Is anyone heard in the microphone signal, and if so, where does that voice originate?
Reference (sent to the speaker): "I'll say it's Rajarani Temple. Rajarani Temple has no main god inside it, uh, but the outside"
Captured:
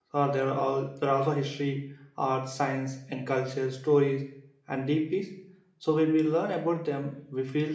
user only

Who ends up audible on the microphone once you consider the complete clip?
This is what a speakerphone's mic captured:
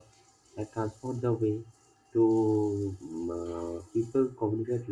user only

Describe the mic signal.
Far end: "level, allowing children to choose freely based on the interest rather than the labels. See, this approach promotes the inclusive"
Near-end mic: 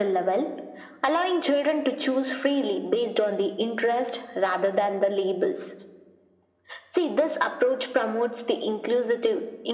echo only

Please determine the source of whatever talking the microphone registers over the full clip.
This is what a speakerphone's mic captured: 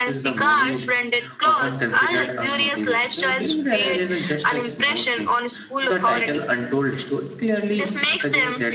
both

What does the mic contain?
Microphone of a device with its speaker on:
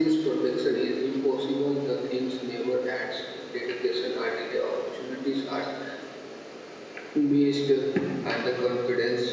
echo only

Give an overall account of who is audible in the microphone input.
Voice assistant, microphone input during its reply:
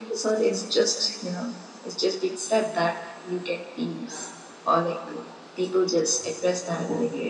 echo only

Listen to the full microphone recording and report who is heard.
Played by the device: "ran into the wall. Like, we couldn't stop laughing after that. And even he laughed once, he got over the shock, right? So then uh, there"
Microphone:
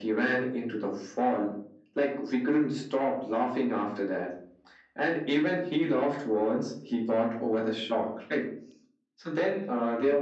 echo only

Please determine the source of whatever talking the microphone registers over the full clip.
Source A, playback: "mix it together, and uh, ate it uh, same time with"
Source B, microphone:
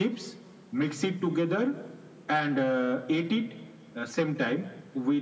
echo only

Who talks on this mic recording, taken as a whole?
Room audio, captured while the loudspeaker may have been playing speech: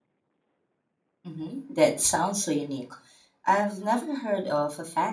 user only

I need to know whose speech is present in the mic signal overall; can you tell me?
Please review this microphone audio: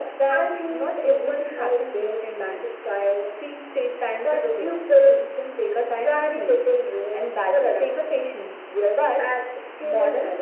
echo only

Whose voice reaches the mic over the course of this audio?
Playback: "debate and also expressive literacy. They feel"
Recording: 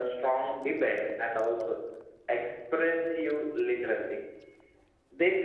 echo only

